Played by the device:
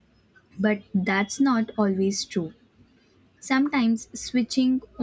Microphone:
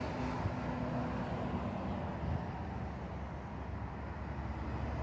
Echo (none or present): none